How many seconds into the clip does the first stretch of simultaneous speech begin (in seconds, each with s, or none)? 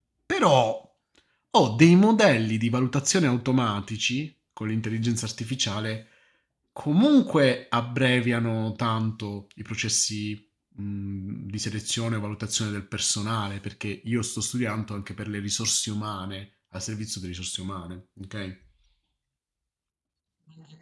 none